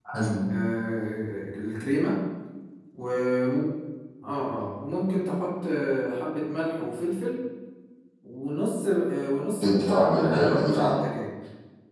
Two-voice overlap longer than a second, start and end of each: 9.5-11.0

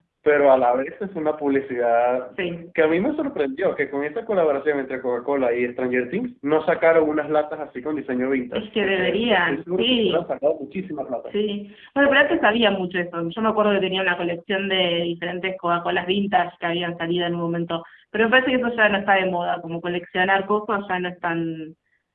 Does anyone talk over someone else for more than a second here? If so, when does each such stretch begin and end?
8.6-10.2

